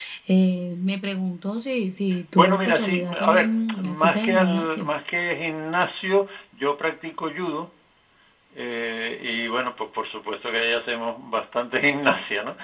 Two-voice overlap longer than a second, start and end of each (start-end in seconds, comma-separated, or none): 2.4-4.9